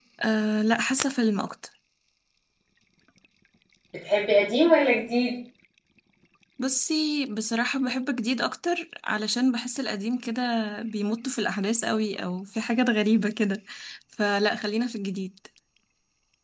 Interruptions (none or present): none